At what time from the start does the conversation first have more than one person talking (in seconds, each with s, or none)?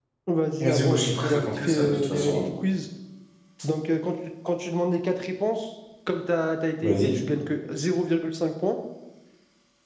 0.6 s